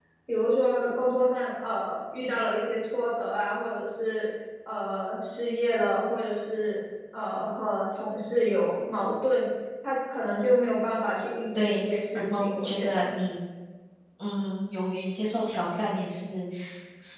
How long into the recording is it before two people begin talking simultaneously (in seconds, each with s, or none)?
11.6 s